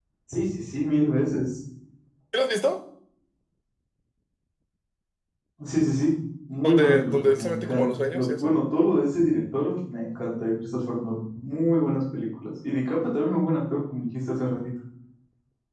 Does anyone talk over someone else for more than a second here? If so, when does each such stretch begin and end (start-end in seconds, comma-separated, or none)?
6.6-8.5